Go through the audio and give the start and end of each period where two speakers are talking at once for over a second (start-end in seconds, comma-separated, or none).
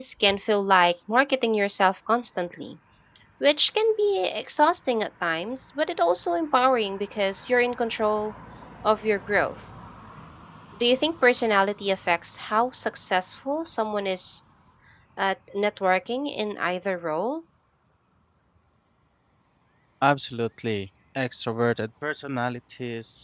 none